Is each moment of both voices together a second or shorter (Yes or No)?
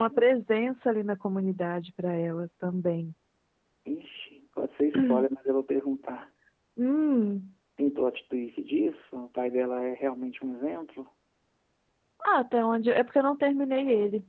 Yes